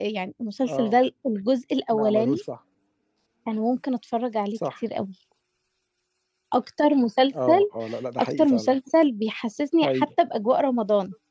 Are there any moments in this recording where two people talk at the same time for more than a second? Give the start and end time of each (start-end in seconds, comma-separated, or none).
none